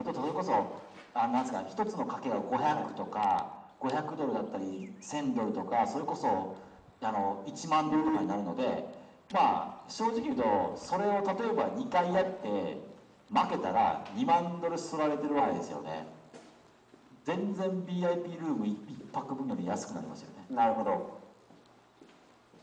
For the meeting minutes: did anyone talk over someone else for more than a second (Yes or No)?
No